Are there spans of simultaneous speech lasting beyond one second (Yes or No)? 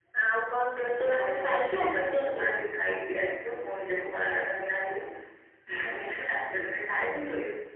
Yes